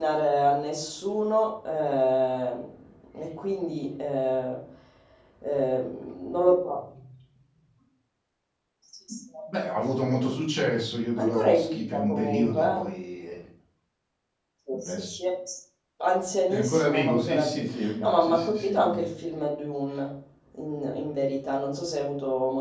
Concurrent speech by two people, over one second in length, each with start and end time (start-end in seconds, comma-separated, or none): 11.2-12.8, 16.5-19.0